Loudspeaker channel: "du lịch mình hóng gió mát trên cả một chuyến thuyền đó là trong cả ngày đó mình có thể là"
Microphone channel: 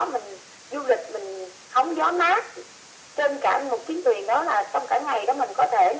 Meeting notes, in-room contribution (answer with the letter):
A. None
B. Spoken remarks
A